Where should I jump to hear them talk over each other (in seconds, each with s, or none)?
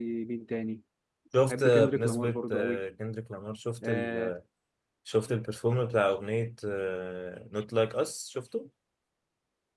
1.5 s